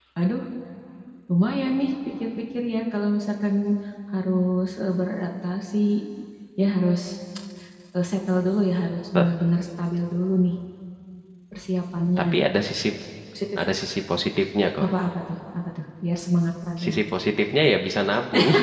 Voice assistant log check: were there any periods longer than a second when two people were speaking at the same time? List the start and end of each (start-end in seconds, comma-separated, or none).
none